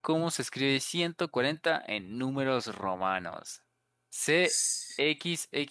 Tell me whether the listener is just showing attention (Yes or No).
Yes